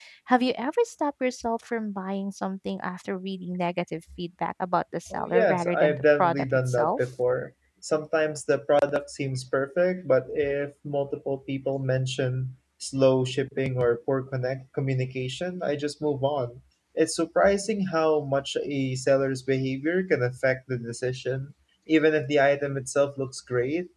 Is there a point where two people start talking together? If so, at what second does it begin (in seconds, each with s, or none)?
5.1 s